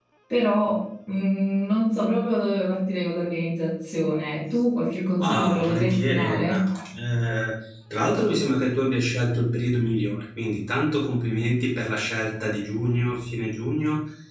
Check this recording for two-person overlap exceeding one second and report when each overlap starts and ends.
5.2-6.7

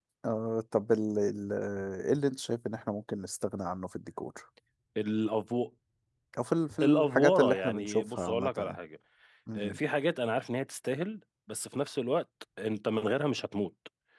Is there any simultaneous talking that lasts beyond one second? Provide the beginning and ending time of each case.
6.8-8.8

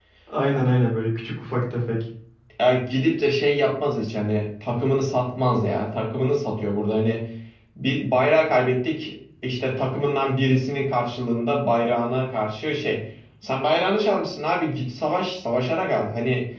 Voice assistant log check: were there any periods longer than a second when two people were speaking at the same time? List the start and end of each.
none

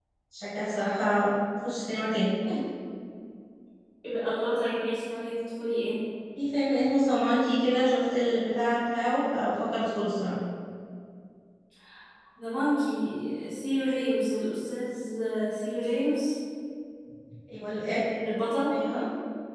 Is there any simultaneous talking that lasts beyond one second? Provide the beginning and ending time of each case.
none

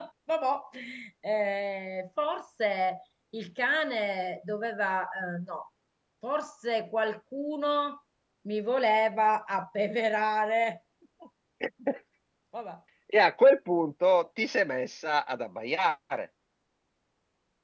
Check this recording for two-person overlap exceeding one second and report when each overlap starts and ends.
none

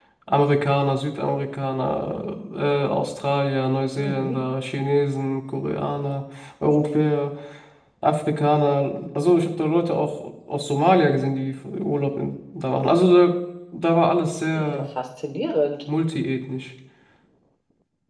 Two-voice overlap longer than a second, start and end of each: none

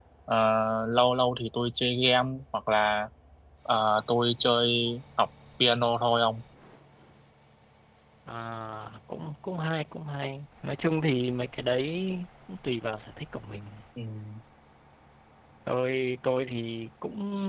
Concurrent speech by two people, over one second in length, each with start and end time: none

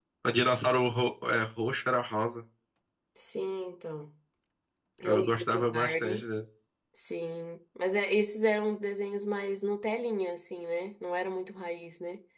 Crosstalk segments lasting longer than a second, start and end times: 5.0-6.2

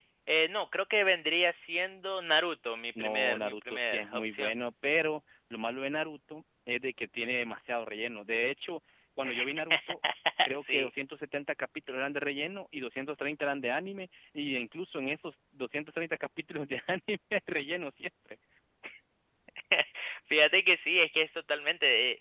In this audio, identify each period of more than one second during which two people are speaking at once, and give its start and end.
3.0-4.5

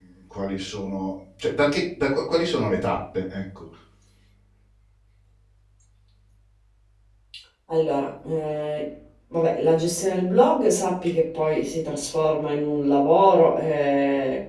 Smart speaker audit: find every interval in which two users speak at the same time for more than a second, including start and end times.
none

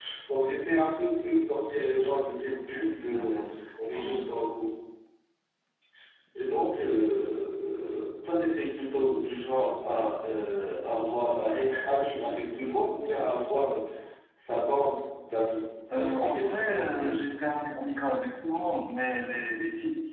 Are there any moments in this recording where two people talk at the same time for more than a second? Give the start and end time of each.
15.9-17.3

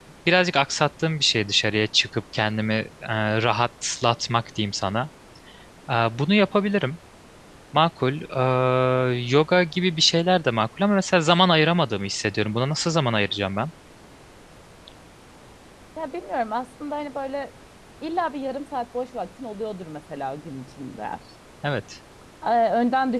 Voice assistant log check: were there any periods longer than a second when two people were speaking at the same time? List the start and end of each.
none

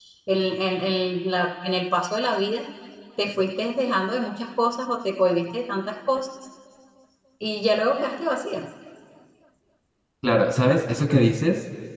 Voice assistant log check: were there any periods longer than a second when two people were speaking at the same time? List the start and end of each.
none

